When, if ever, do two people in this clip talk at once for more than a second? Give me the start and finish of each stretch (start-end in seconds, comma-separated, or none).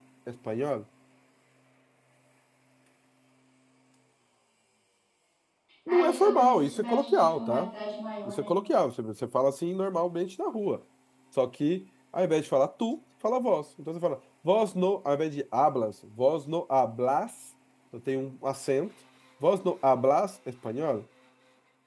5.9-7.7